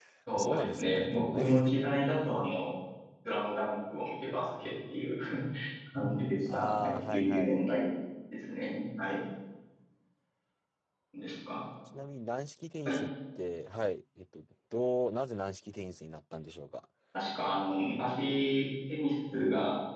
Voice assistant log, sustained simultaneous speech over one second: present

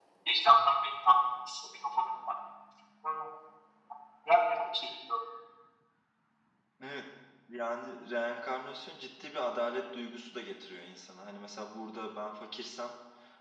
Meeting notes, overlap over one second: none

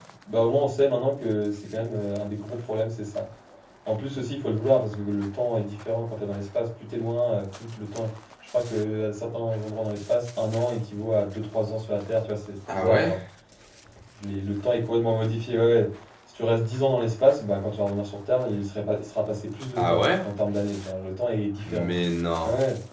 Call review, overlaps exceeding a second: none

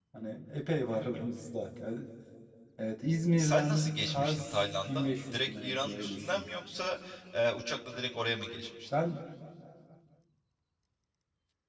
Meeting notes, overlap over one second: present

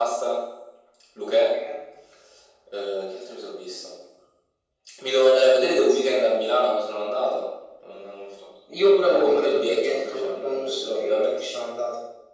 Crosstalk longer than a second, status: present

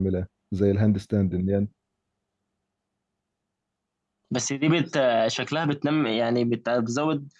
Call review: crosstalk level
none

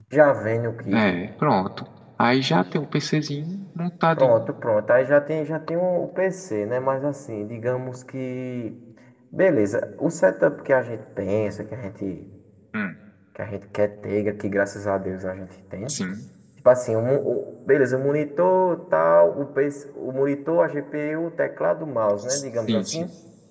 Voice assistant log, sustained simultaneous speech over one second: none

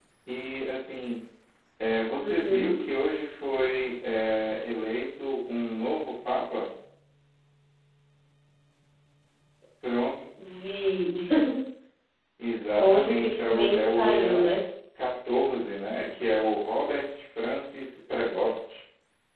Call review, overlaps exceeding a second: present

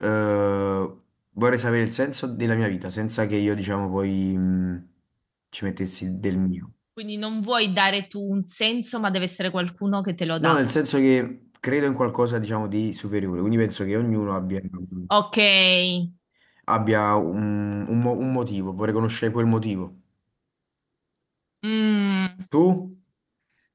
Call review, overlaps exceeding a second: none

